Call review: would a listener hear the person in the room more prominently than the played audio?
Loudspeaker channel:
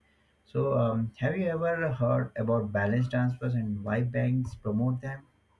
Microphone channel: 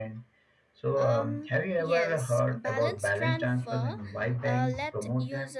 No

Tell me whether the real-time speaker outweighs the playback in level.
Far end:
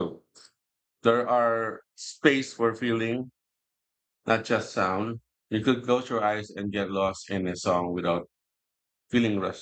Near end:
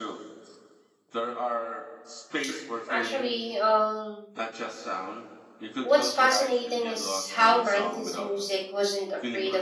Yes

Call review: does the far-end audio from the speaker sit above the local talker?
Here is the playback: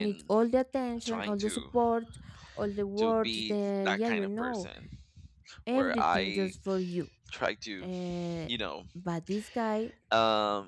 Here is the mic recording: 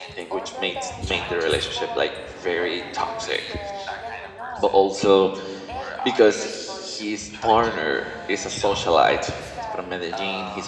No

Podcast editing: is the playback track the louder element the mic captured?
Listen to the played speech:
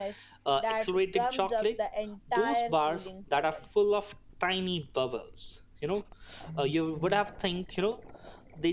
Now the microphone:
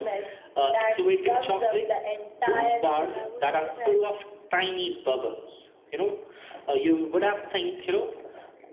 Yes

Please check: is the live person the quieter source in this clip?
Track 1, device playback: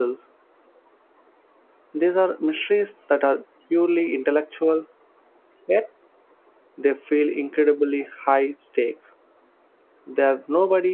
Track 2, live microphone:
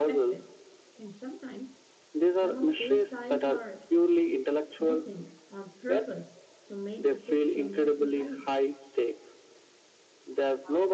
Yes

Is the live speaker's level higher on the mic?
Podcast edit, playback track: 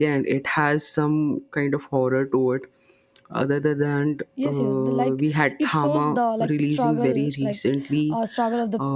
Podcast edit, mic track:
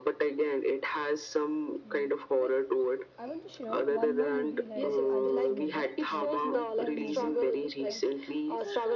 No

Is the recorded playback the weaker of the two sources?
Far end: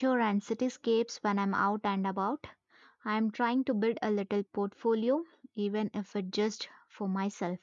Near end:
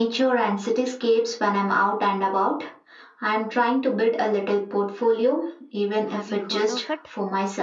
No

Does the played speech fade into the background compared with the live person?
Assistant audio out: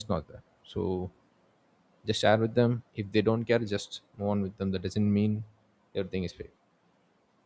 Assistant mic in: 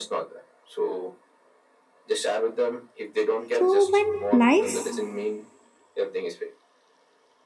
Yes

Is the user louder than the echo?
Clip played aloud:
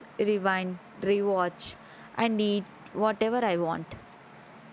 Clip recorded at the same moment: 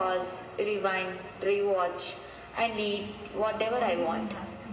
No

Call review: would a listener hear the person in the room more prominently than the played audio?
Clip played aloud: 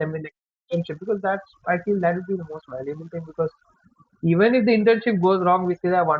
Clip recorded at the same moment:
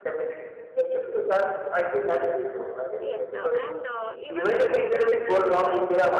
No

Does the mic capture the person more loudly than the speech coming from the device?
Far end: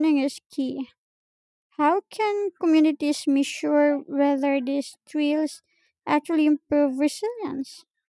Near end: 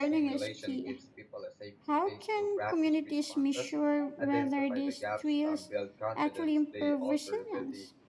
No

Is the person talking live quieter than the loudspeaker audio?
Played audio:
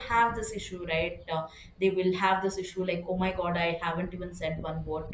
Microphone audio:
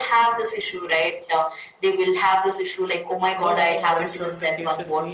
Yes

